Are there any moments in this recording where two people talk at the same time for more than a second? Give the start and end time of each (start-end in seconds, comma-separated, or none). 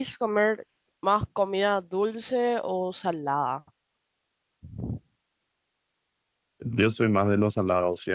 none